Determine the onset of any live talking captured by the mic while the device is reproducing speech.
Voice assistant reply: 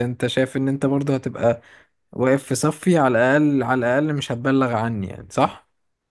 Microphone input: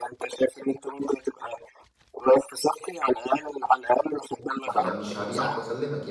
5 s

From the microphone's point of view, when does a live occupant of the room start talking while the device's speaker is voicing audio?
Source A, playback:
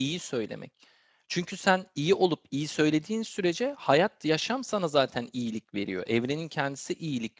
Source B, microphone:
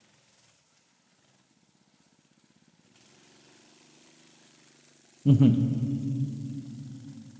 5 s

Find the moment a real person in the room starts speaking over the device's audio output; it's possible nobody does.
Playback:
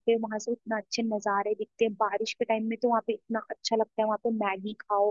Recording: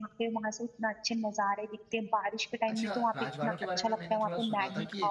3 s

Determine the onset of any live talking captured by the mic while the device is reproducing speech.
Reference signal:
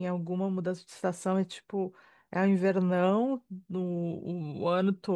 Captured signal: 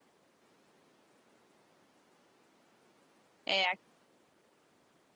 3 s

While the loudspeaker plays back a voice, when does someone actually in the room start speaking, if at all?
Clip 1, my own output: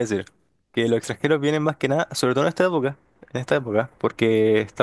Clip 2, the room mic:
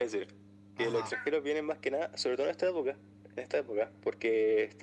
1 s

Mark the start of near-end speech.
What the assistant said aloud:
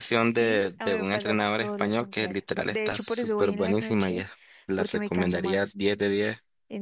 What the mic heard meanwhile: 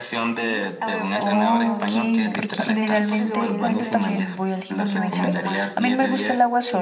1 s

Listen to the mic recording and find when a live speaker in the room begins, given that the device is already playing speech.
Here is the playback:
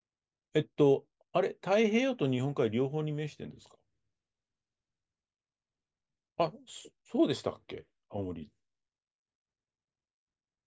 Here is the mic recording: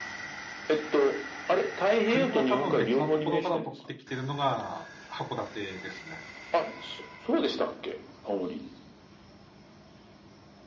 2 s

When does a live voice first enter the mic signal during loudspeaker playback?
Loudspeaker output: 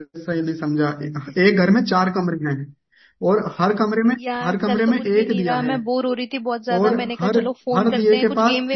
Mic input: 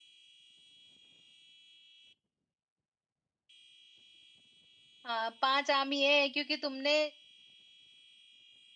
5 s

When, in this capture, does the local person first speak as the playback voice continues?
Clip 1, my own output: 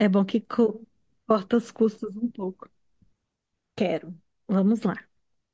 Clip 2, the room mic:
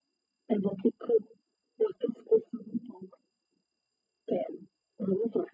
none

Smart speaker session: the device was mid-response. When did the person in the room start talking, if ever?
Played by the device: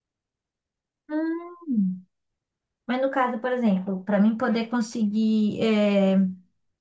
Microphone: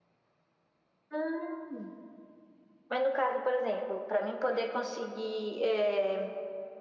none

